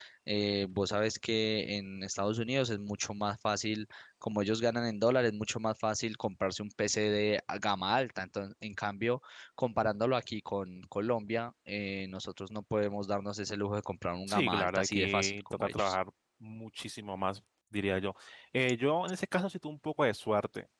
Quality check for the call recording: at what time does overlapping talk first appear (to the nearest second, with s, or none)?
14 s